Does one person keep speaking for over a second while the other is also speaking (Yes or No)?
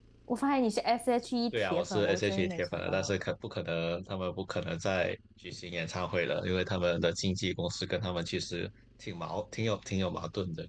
Yes